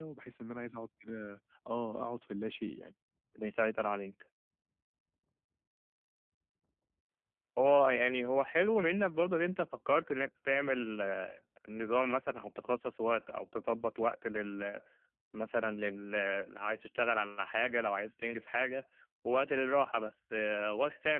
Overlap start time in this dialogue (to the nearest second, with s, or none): none